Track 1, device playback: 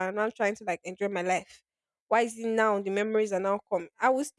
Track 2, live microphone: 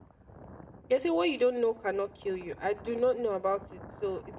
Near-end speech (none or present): present